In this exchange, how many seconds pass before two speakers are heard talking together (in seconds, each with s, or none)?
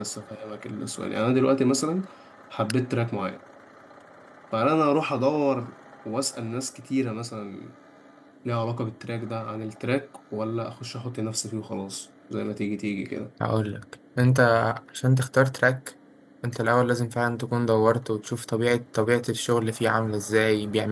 none